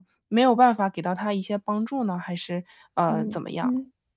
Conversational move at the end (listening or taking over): taking over